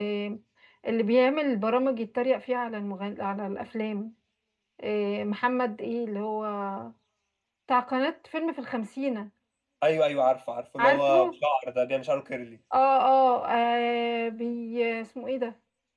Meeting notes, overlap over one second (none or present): none